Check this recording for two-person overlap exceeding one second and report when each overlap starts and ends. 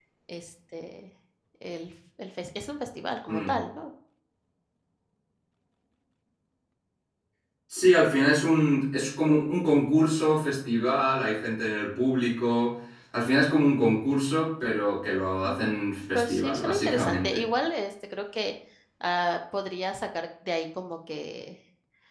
16.1-17.4

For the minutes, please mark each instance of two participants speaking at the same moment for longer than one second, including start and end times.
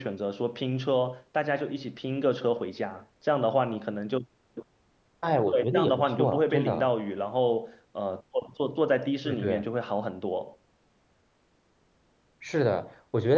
5.5-6.9

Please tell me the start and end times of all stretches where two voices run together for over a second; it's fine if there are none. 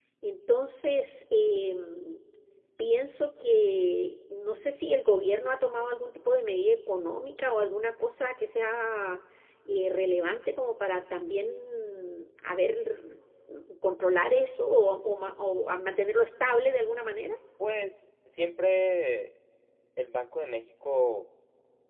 none

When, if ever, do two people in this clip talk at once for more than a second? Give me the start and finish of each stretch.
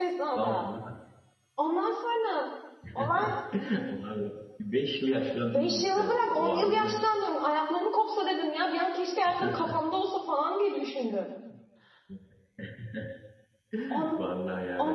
5.5-7.0

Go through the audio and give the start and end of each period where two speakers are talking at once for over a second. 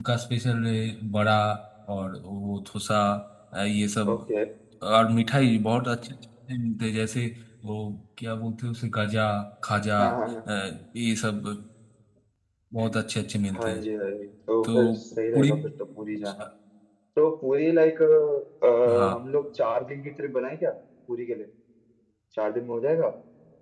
none

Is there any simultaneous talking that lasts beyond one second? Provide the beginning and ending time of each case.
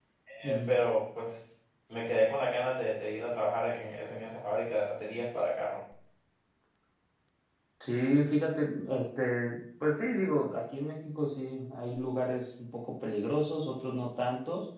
none

